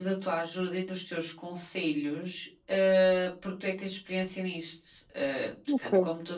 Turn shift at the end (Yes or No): No